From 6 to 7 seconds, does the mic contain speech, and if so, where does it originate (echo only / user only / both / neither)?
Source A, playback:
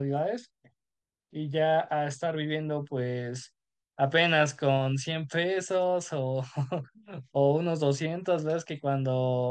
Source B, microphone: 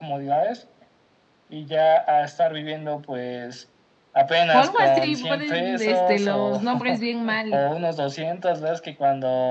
both